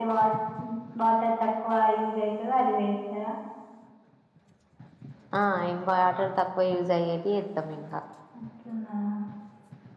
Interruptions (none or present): none